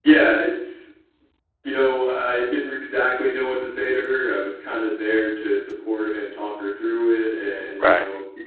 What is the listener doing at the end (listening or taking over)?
listening